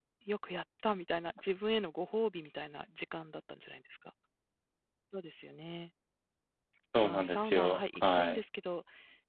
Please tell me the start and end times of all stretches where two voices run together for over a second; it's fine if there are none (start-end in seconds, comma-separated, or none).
7.0-8.4